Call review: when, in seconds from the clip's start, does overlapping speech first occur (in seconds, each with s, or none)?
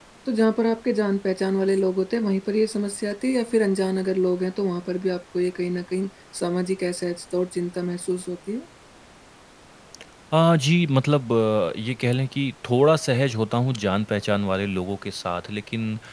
none